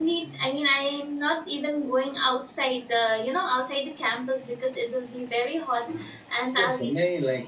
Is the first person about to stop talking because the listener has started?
Yes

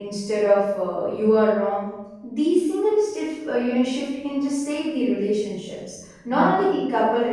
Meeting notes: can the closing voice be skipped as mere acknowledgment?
Yes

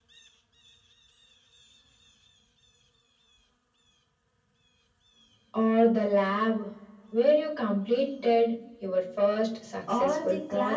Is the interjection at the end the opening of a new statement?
Yes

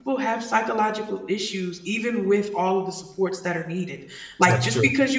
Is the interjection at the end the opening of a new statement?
No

